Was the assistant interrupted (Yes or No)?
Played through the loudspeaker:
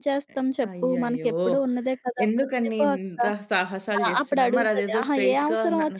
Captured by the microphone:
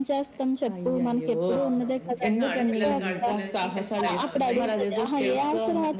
Yes